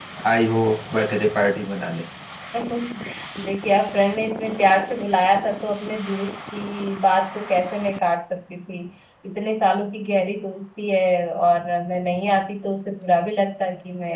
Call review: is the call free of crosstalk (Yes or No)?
Yes